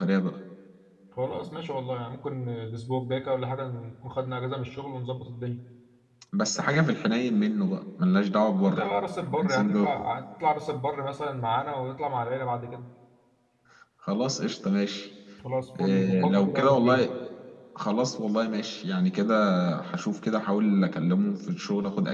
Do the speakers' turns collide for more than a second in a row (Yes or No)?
Yes